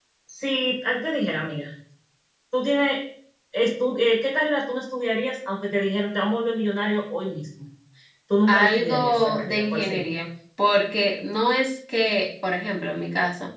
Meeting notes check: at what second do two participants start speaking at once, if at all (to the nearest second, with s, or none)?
8 s